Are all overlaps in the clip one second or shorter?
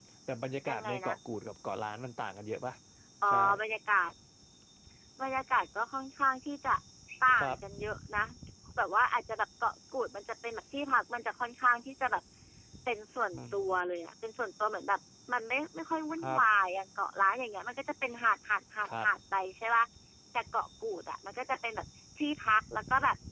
Yes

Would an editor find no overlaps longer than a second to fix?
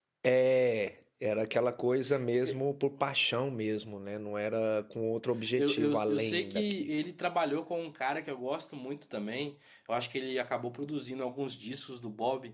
No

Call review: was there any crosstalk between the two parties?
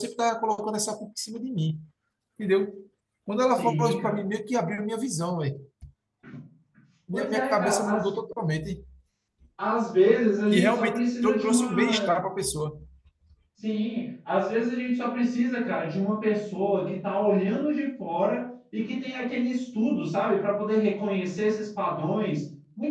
Yes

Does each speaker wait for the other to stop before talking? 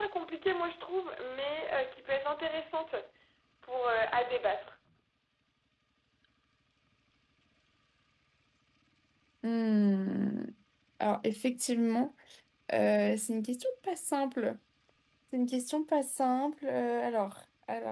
Yes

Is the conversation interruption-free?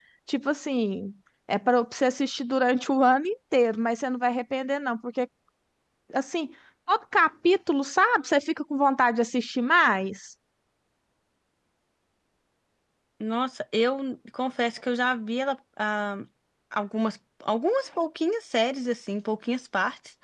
Yes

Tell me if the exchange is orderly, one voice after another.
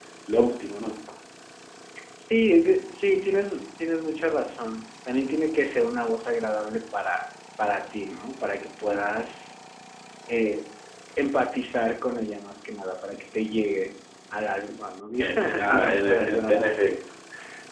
No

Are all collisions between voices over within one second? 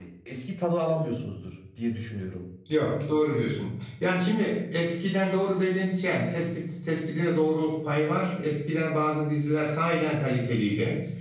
Yes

